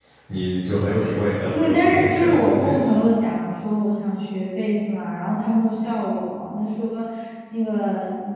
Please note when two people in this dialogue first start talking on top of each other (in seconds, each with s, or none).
1.5 s